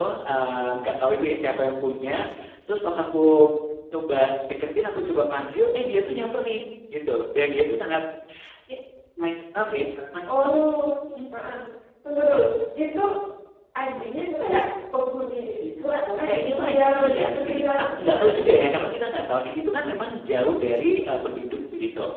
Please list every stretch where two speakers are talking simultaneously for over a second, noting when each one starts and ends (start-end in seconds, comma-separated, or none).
16.2-18.5